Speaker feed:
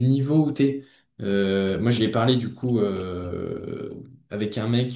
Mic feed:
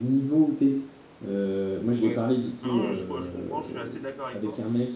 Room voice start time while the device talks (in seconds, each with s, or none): 2.0 s